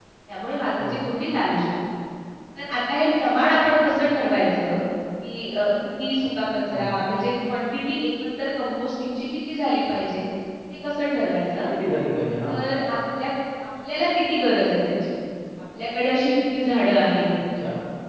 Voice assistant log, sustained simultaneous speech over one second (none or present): none